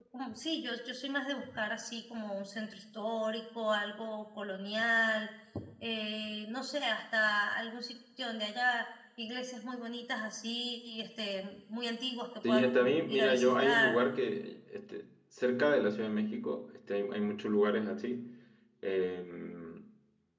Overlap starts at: 12.4 s

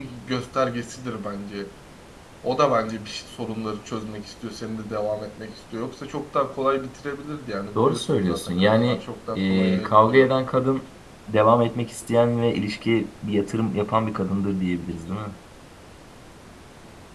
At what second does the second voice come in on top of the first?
7.8 s

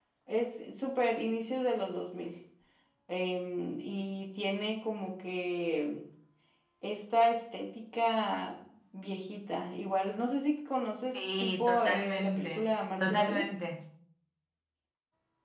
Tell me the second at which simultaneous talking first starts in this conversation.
11.1 s

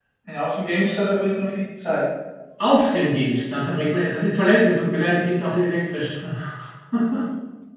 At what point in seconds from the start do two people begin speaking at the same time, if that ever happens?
none

